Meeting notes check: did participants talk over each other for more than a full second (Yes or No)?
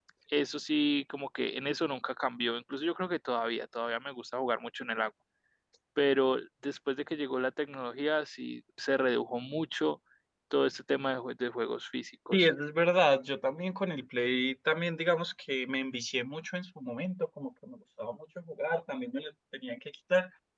No